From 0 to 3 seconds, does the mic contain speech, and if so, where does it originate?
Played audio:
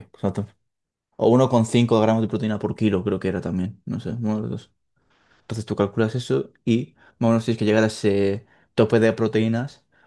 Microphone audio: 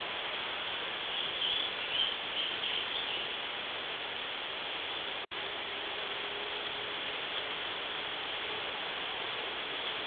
neither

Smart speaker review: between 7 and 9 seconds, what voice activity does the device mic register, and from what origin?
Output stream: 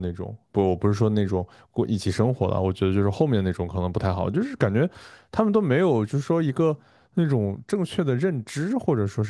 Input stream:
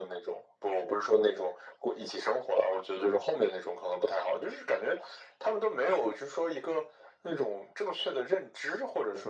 echo only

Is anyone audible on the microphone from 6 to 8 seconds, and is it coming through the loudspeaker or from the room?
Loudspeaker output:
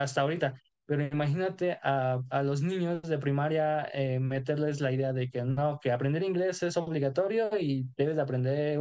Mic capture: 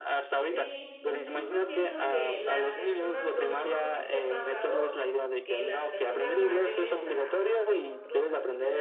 both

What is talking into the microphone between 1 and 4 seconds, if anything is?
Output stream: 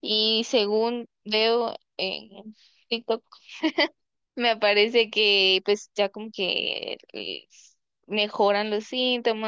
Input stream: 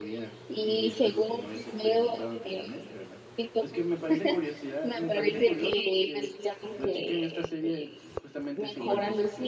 both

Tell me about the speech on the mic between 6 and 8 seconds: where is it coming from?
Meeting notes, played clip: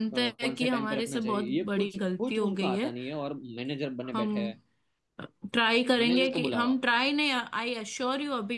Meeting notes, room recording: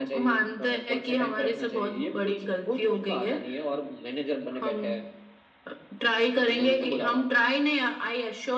echo only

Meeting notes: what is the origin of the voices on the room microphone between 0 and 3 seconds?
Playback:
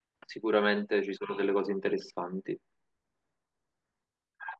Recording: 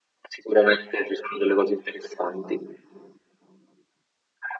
echo only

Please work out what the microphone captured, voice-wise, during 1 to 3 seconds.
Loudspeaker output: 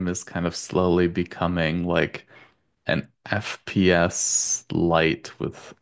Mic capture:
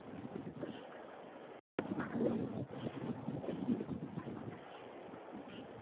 neither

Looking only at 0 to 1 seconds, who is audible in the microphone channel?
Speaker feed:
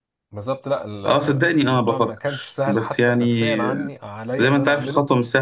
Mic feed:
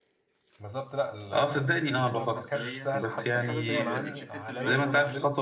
echo only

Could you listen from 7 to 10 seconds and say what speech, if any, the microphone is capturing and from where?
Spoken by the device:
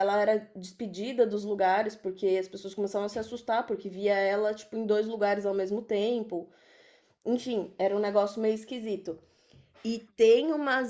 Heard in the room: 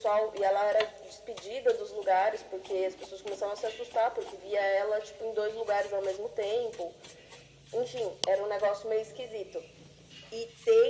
echo only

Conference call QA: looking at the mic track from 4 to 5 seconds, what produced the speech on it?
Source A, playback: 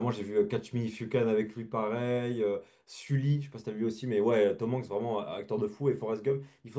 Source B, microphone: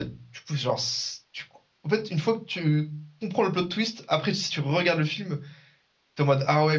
user only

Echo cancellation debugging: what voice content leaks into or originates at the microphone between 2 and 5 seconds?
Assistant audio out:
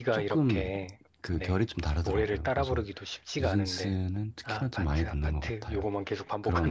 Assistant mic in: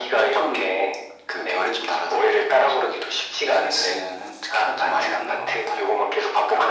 echo only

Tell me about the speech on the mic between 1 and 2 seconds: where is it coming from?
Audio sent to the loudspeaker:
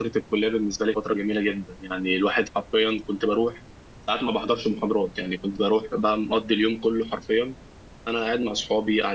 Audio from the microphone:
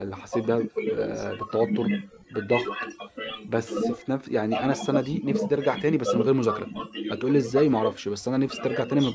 both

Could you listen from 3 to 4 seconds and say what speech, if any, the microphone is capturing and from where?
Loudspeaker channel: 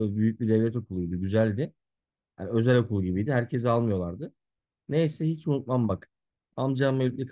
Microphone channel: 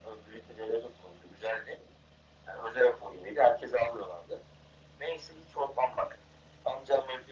echo only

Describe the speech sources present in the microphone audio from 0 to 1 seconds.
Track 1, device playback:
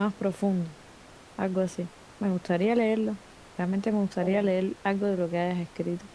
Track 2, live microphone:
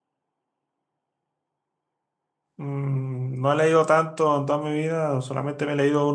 neither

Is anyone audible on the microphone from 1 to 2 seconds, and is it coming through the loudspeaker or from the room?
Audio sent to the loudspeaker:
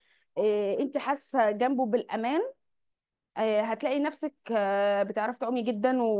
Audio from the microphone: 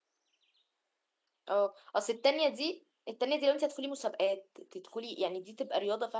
user only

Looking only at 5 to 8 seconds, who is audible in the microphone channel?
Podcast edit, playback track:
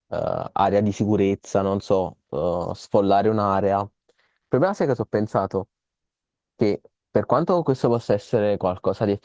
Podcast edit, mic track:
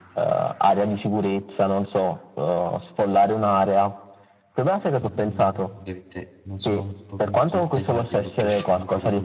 both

